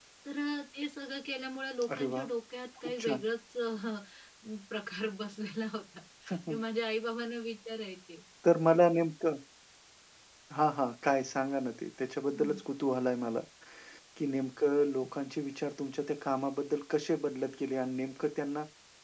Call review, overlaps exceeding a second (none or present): none